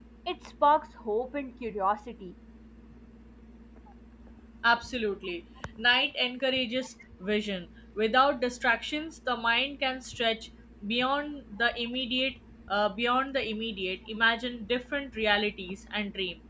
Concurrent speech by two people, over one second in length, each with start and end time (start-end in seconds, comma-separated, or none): none